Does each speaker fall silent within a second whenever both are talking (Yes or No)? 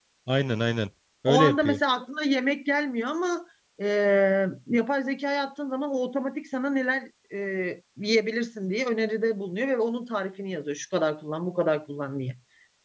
Yes